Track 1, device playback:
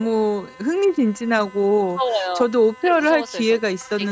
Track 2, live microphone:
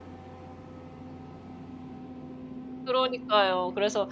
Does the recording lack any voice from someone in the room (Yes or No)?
No